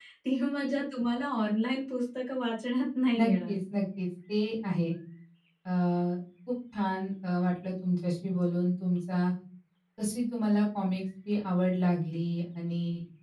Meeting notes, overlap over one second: none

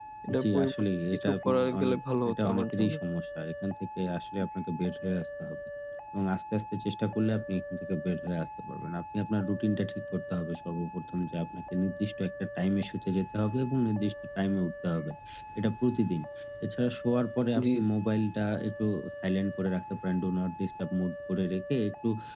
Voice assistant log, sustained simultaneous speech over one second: present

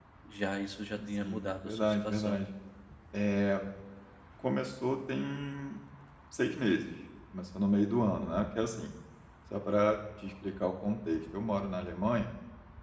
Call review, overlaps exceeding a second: present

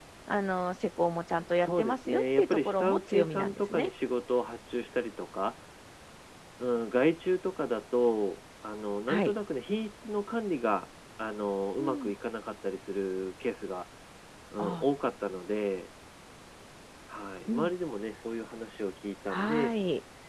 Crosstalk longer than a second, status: present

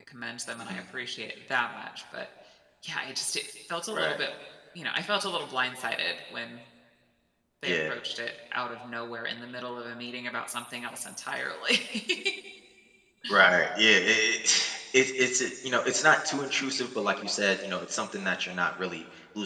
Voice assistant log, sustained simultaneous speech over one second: none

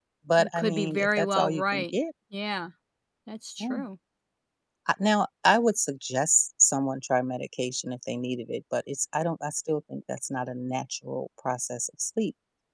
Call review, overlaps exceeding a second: present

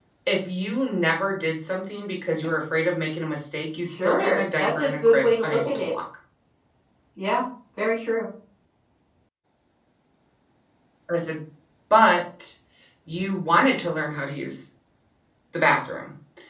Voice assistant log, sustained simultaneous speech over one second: present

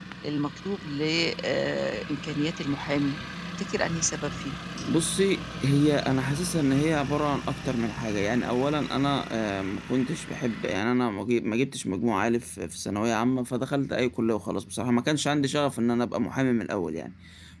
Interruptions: none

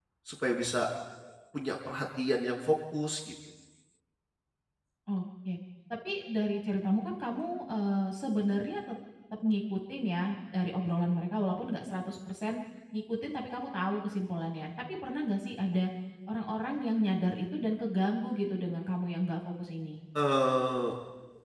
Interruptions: none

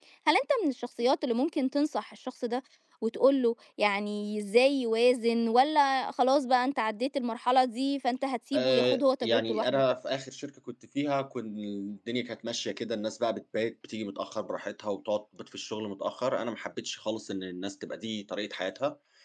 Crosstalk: present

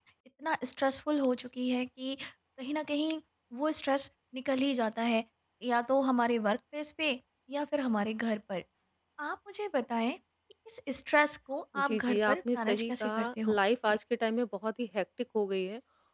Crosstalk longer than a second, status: present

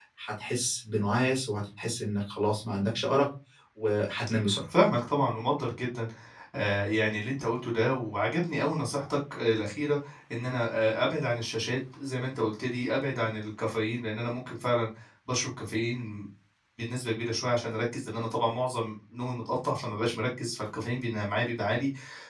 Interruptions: none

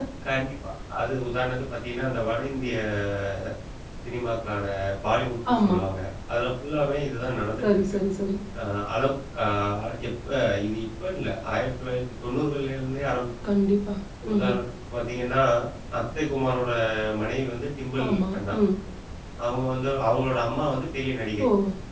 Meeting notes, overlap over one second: none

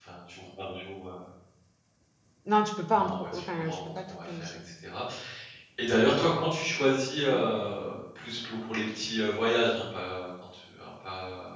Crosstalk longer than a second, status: present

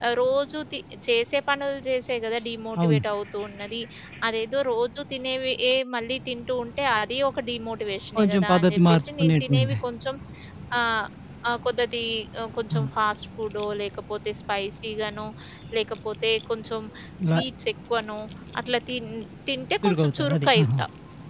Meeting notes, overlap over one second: present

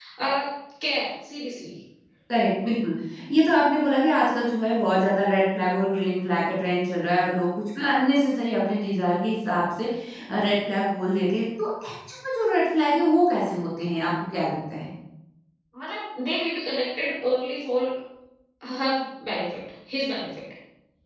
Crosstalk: none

